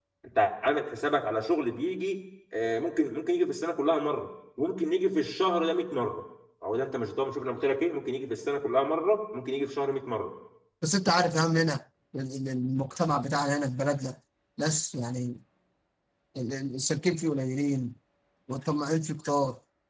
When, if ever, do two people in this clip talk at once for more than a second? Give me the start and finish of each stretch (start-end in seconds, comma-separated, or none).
none